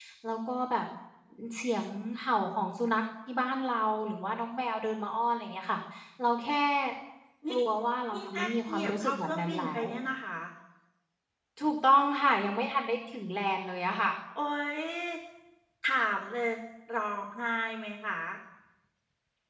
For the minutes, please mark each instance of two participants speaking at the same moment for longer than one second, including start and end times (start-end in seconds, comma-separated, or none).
8.1-9.8